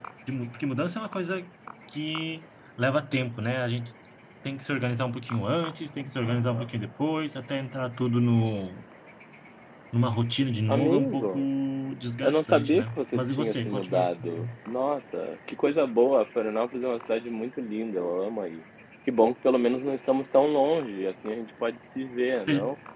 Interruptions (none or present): present